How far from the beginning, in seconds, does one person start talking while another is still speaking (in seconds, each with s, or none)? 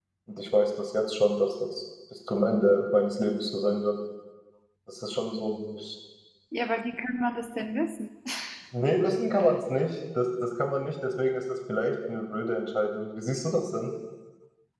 none